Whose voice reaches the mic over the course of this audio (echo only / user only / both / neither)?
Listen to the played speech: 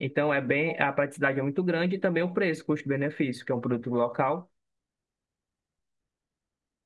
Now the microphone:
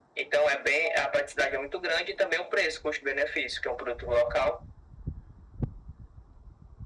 echo only